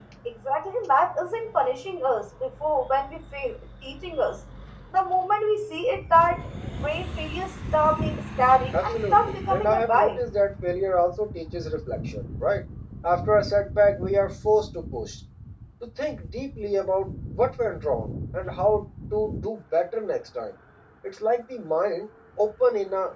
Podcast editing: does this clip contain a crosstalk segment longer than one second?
Yes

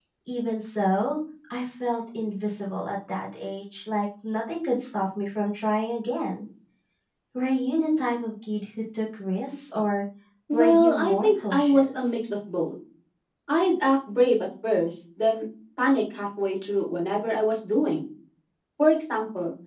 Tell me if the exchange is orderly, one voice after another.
No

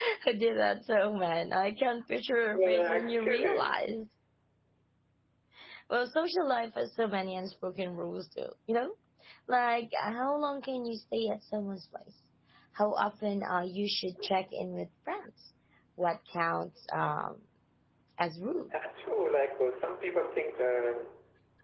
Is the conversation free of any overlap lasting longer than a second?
No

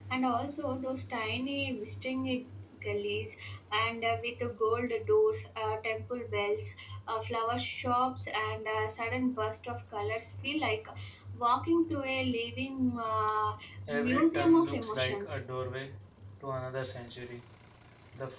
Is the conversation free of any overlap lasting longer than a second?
No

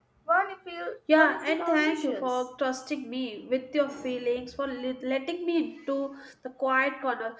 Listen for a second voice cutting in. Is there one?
Yes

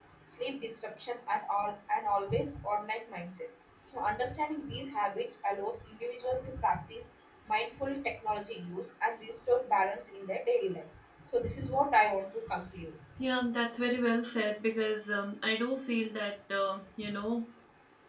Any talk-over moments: No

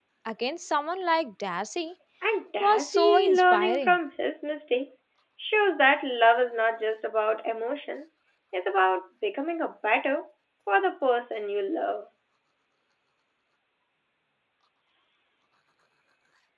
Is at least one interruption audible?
Yes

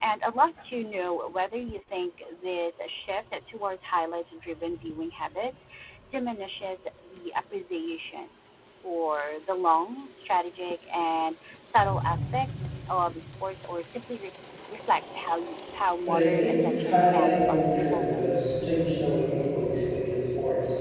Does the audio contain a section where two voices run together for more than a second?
Yes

